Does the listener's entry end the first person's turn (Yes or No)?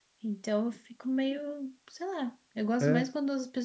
No